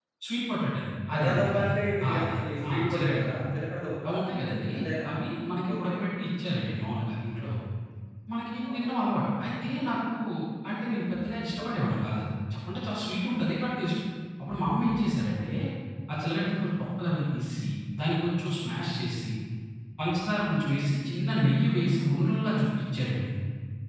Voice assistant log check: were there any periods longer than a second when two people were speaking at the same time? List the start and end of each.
1.2-3.5

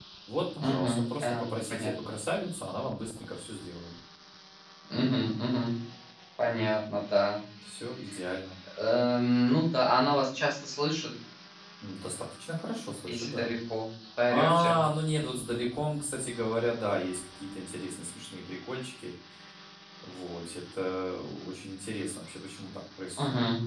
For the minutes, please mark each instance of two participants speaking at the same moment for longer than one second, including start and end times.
0.6-1.9

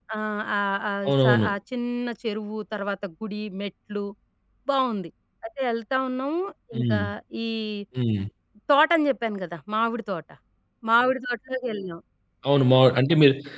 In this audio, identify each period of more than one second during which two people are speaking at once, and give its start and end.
none

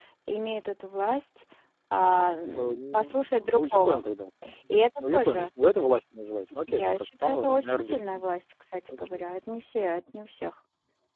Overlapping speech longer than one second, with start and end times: 2.6-4.0, 6.7-8.3

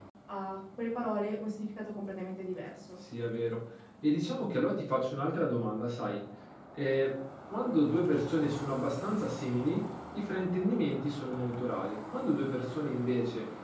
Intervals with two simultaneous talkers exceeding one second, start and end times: none

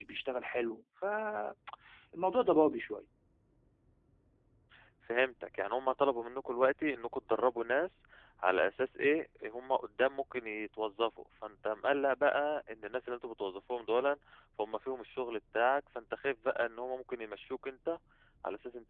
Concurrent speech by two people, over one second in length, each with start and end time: none

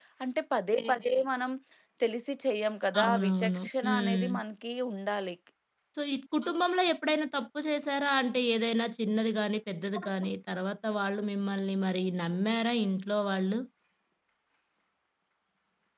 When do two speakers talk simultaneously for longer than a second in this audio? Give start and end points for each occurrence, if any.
3.0-4.3

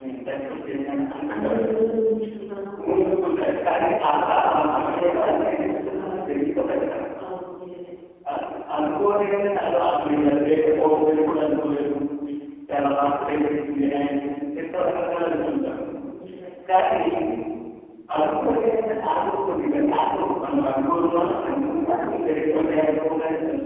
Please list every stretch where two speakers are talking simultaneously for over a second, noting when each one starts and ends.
2.9-4.1

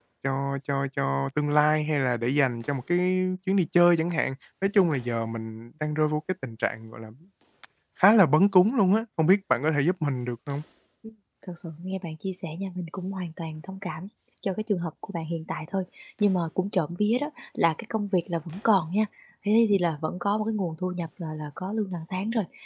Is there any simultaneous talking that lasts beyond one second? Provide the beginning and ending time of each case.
none

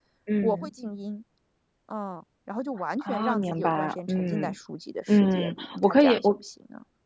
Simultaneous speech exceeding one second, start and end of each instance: 3.0-4.6, 5.1-6.4

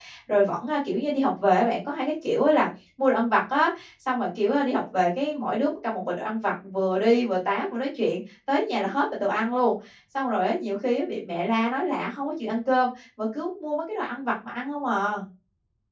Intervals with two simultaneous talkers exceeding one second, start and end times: none

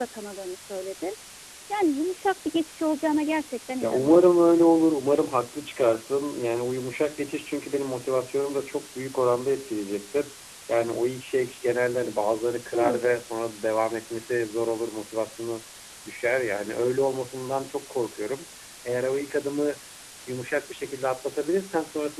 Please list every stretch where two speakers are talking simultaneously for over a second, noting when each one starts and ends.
none

